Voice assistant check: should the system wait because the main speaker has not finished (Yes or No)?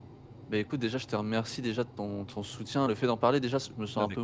Yes